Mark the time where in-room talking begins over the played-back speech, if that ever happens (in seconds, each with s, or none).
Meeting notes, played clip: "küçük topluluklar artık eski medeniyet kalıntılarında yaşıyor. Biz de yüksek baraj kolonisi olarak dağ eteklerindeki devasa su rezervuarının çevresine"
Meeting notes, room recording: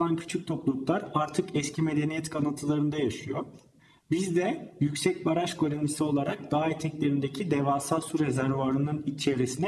none